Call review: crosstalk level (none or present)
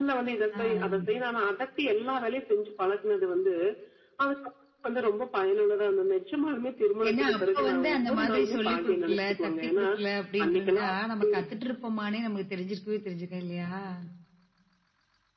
present